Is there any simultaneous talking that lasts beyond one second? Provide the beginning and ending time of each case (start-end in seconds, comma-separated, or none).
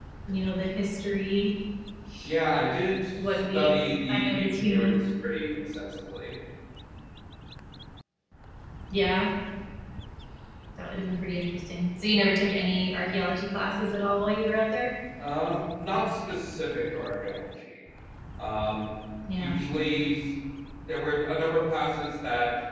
3.3-4.9